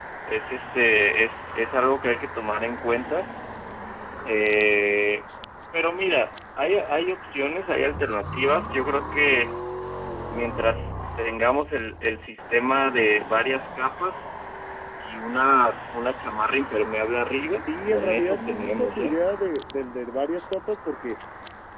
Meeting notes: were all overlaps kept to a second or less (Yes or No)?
No